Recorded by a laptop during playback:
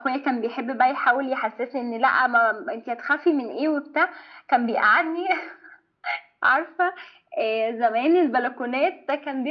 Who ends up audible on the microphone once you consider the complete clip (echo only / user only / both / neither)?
echo only